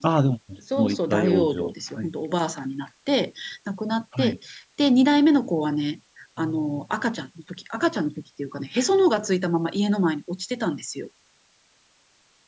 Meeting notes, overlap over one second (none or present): present